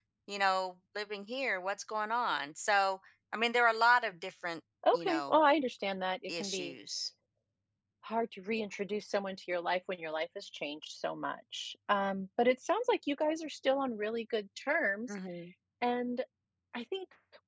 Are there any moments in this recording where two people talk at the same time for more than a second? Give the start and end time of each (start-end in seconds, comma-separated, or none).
none